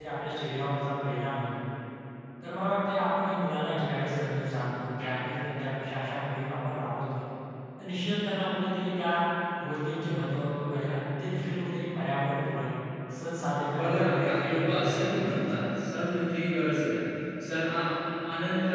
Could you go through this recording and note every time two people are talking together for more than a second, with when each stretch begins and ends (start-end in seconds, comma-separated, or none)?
13.8-15.8